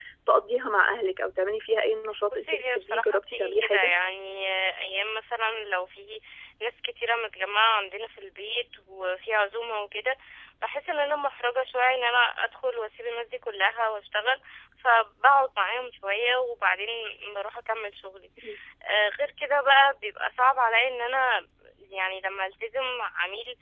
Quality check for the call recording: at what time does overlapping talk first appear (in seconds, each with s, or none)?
2.3 s